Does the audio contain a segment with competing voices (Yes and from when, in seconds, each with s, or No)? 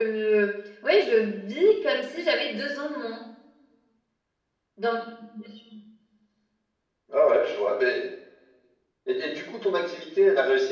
No